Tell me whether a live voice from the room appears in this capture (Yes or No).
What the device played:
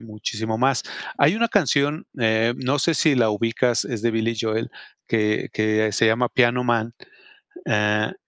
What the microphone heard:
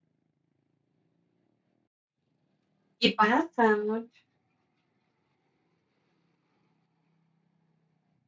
Yes